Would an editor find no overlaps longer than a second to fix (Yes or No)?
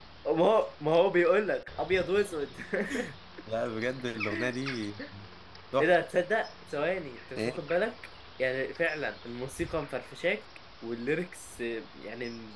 Yes